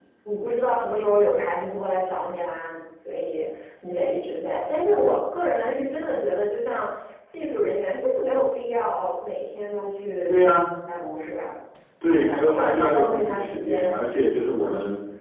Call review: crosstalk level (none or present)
present